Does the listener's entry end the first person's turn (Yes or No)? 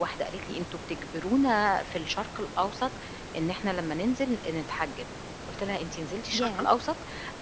No